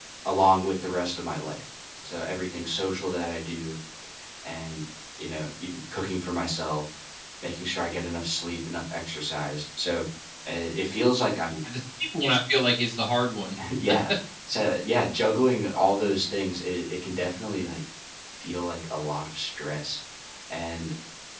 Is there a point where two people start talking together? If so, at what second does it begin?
none

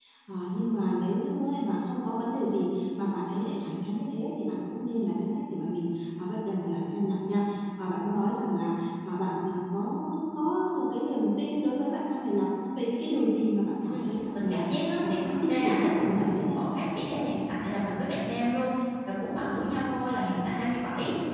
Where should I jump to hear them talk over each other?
13.9 s

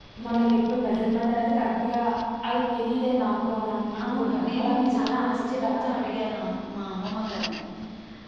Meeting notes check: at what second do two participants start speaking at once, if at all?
4.0 s

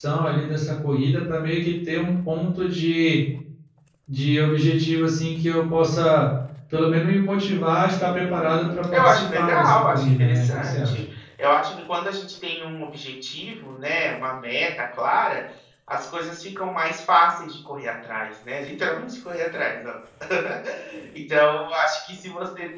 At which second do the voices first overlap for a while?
8.0 s

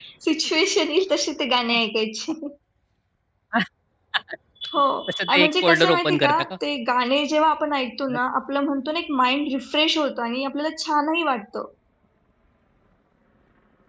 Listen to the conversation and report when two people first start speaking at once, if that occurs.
5.3 s

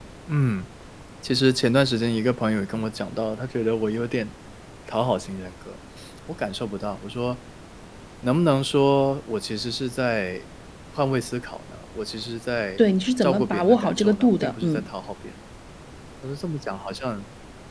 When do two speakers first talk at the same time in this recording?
13.2 s

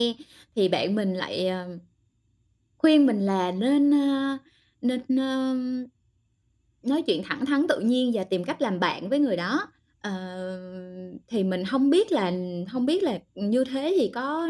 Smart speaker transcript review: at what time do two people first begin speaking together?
none

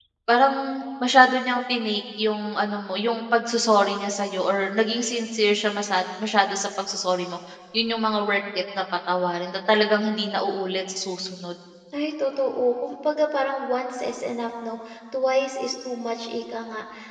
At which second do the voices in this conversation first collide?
none

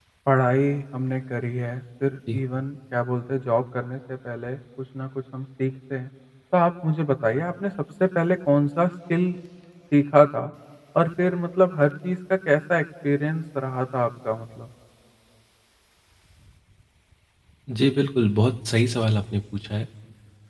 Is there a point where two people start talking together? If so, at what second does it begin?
none

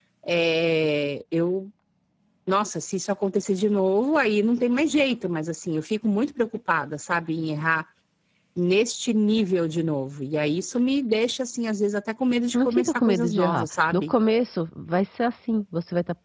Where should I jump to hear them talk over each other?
12.5 s

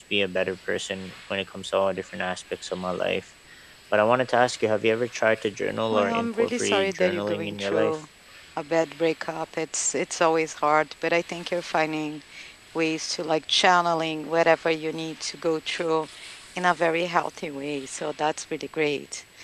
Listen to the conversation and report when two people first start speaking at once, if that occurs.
5.9 s

